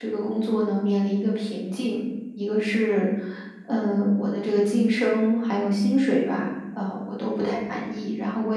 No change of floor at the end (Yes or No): Yes